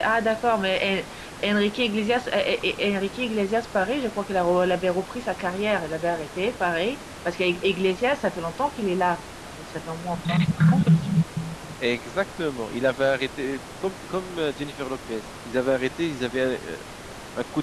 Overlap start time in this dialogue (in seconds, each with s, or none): none